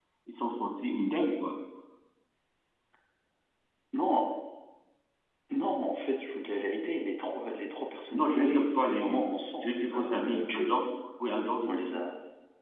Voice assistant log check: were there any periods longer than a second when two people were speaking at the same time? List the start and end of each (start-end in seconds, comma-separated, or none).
8.1-10.8